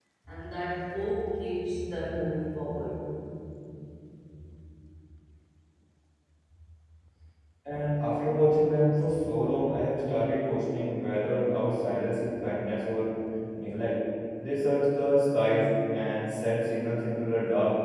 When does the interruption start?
none

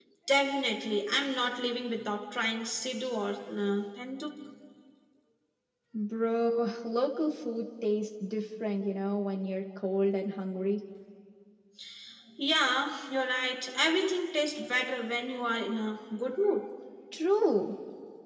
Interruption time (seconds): none

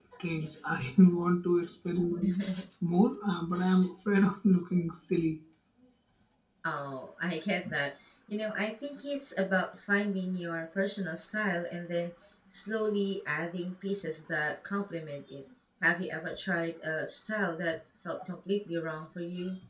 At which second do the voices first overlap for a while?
none

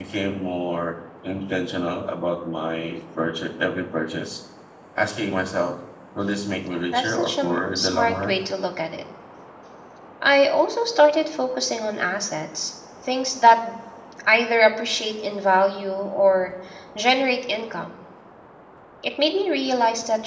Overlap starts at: 6.9 s

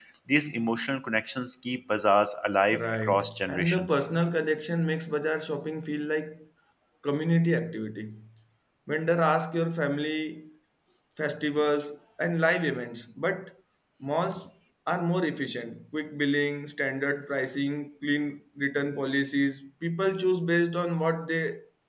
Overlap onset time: 2.7 s

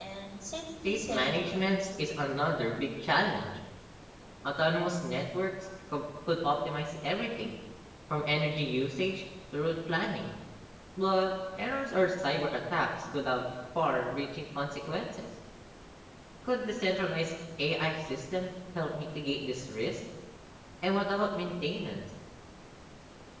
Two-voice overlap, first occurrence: 0.8 s

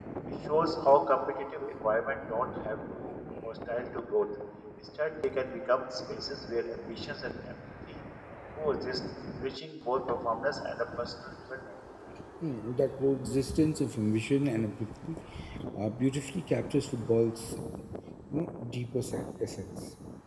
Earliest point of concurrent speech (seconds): none

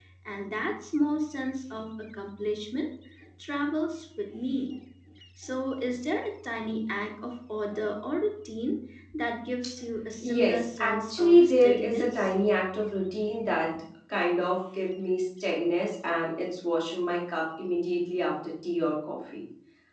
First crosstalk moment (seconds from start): 10.2 s

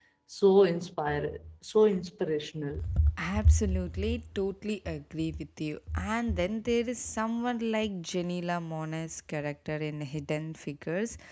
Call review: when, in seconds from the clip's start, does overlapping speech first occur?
none

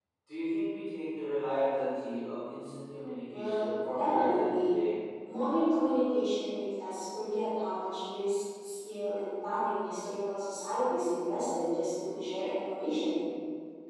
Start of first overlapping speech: 3.2 s

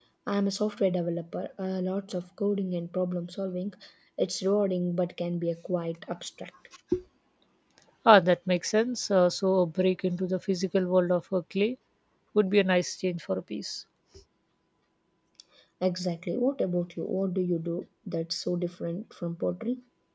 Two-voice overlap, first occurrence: none

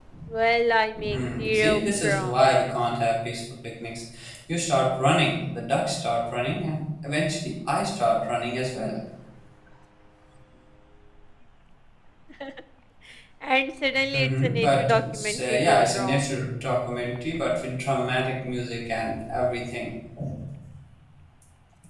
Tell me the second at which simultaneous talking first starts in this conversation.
1.1 s

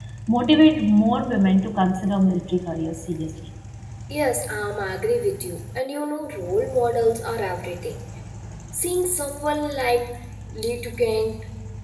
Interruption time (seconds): none

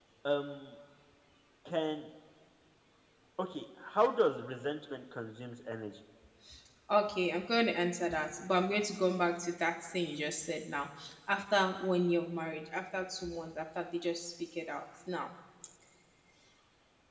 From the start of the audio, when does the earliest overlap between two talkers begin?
none

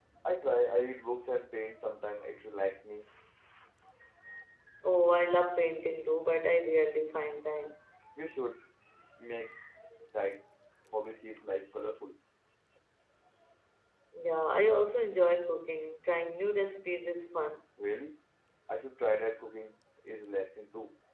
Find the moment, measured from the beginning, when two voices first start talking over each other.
none

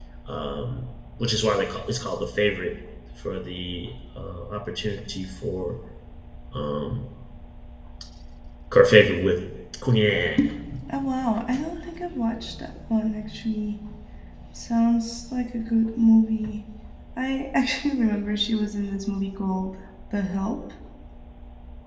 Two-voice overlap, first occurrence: none

